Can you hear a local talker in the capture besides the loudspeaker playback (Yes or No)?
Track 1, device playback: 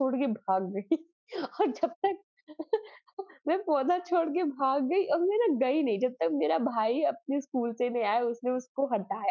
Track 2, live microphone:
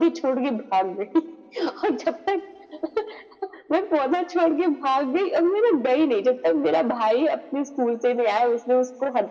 No